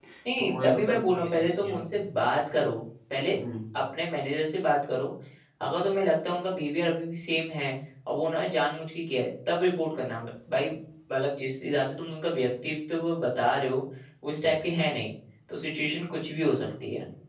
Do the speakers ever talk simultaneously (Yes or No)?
Yes